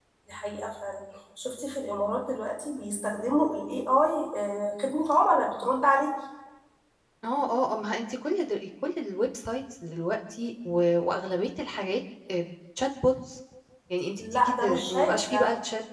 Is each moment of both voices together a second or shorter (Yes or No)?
No